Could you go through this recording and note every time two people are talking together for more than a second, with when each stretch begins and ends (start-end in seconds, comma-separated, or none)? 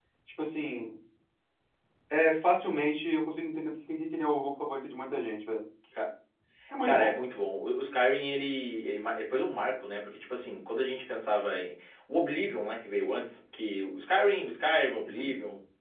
none